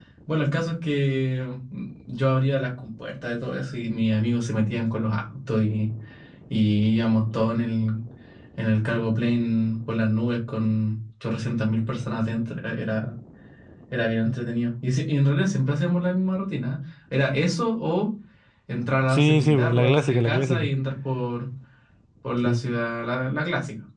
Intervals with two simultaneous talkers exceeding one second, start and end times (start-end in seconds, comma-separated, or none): 19.1-20.7